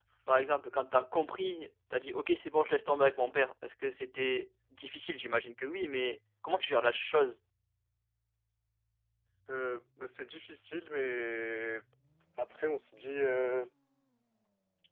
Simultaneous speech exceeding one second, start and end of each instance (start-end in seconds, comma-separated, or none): none